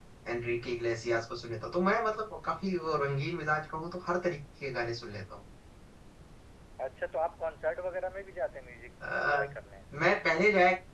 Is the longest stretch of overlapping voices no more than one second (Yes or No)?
Yes